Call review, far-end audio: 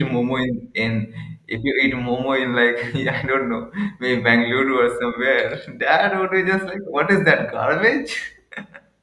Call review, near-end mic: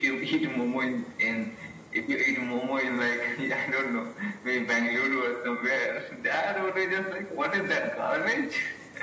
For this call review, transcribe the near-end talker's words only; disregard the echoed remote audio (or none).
none